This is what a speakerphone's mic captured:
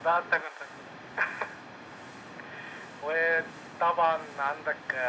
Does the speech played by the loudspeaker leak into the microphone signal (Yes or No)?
Yes